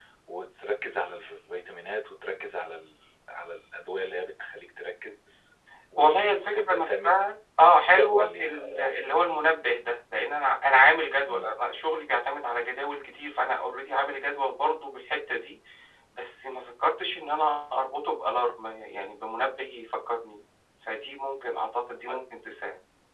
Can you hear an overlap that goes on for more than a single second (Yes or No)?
Yes